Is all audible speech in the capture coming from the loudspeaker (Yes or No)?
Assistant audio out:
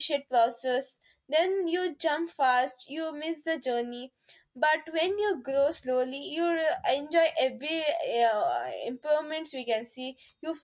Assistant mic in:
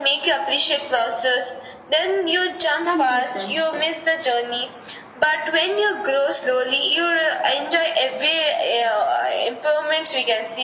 No